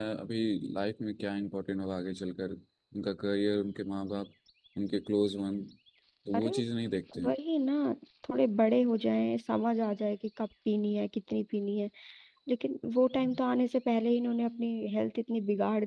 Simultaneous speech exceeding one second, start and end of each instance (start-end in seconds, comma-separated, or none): none